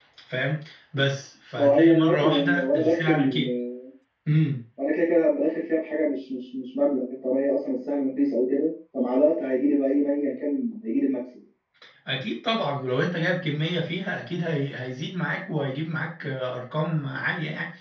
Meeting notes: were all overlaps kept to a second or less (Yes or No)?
No